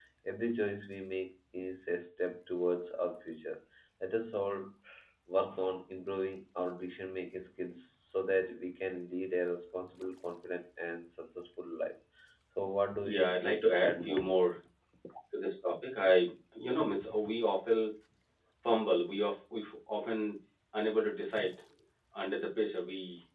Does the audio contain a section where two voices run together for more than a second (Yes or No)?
Yes